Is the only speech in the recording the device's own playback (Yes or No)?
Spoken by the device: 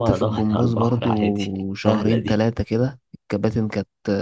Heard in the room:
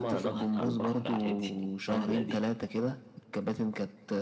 Yes